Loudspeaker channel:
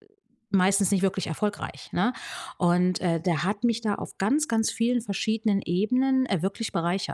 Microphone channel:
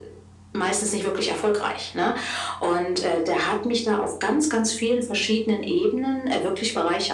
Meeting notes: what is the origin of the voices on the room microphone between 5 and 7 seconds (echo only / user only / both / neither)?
echo only